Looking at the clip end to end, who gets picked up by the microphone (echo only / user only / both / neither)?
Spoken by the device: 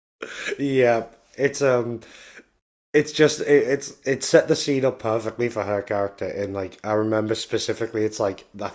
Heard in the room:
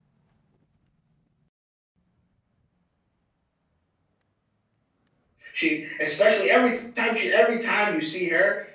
user only